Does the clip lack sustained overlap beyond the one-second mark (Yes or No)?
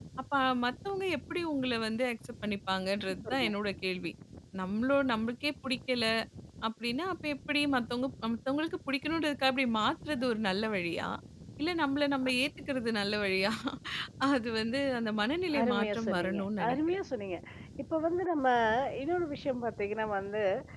No